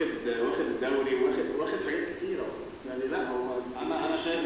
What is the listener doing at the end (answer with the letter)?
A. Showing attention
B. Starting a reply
B